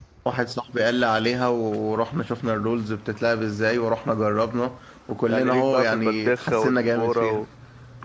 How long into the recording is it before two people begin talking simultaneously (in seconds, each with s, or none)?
5.3 s